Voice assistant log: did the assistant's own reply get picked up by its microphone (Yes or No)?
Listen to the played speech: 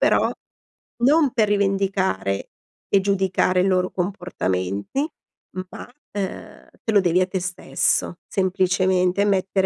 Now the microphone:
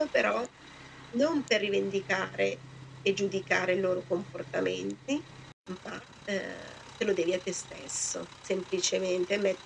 Yes